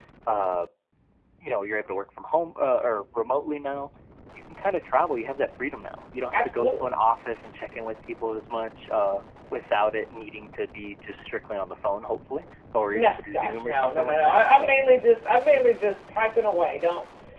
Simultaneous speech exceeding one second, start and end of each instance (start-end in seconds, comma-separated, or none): 12.9-14.8